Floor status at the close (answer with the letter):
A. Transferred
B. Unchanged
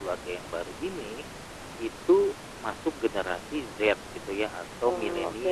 A